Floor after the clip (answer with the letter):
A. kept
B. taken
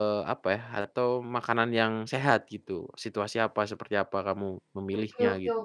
B